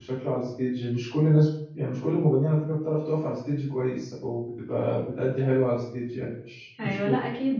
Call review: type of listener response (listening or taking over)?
taking over